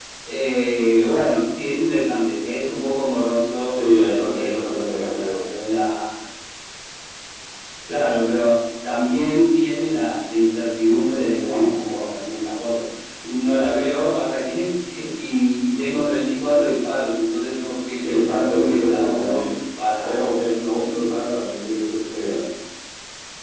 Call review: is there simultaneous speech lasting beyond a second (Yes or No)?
Yes